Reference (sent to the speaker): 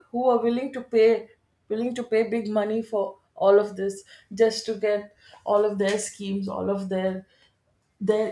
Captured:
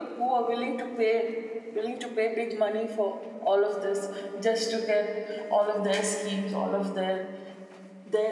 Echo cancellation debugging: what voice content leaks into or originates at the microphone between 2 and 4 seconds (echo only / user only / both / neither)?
echo only